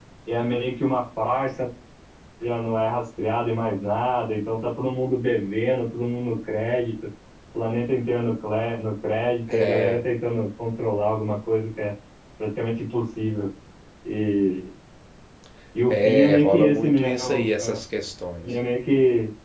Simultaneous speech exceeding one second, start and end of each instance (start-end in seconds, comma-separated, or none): 15.9-17.8